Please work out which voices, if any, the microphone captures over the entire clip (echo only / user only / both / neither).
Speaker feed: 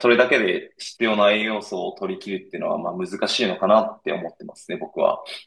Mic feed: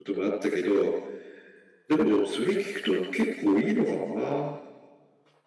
user only